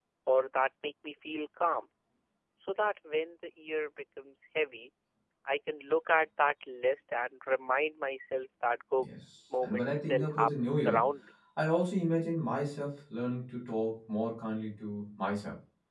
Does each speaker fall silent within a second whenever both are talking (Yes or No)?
No